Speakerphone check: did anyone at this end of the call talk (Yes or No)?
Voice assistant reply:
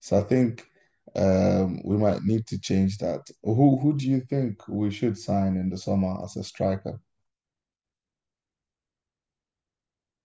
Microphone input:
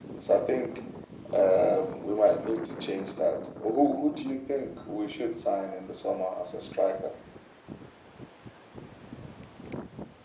No